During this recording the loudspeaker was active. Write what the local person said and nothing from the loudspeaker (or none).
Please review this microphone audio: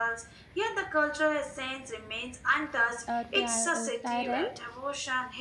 uh, tyr- uh, tyrant.